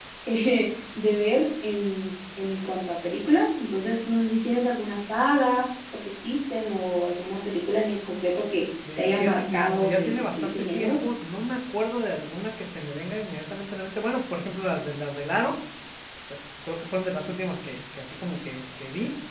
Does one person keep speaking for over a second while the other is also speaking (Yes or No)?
Yes